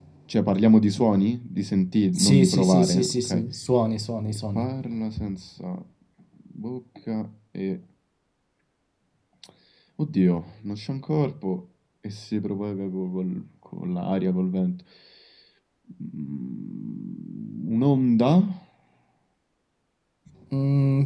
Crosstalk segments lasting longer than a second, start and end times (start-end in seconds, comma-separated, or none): 2.1-3.4